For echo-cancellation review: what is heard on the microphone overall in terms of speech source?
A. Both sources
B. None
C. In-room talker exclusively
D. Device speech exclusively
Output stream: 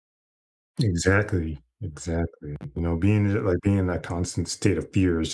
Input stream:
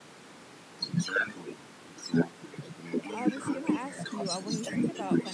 A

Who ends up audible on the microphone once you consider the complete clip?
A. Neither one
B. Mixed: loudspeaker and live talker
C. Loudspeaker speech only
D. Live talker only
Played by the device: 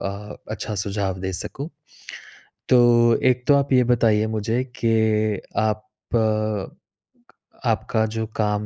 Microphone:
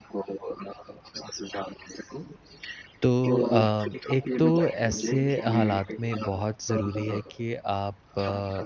B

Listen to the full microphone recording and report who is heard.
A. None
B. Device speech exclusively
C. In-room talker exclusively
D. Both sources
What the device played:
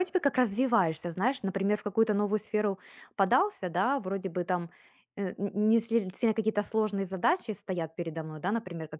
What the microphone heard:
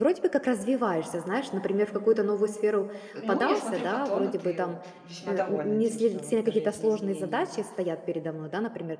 D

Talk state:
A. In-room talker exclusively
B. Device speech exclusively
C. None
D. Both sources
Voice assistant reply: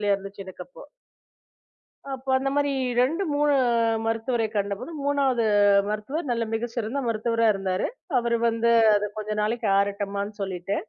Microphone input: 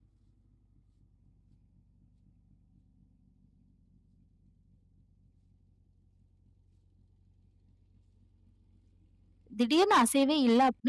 A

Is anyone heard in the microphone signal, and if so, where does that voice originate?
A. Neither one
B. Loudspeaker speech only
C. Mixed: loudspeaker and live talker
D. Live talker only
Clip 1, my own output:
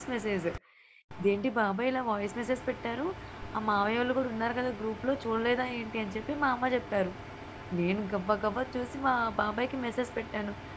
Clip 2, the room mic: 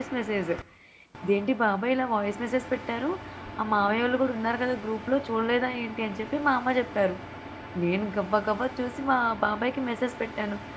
B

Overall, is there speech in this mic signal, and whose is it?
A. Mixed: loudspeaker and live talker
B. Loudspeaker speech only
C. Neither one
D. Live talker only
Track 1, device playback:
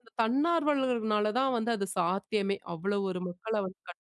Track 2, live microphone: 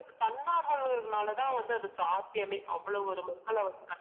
B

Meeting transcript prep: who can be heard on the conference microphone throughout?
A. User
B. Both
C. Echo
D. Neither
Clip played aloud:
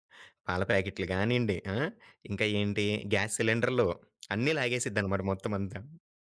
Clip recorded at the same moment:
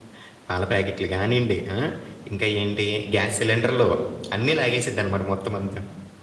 C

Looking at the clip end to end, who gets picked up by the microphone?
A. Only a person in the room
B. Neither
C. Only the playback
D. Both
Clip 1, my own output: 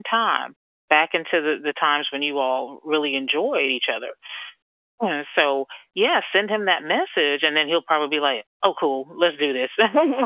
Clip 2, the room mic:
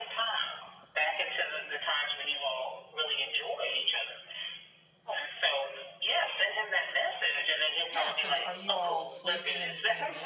D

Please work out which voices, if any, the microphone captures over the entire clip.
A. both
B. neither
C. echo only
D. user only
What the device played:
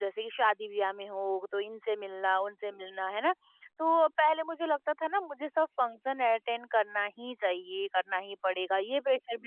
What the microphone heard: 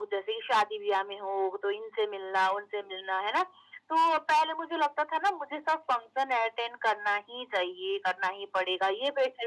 C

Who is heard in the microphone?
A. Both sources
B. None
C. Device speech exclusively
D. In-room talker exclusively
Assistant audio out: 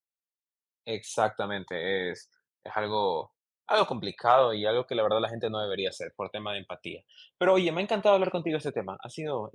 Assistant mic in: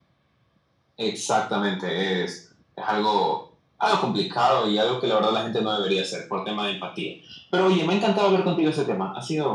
C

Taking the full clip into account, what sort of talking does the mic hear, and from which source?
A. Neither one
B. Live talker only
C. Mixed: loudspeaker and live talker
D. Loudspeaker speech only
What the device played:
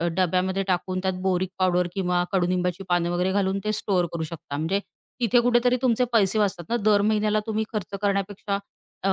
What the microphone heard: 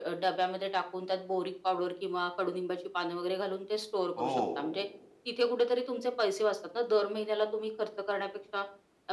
C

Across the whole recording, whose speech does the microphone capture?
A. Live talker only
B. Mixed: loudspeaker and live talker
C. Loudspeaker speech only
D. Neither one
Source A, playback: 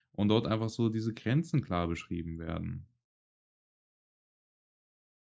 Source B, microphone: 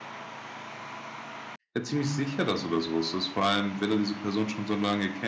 A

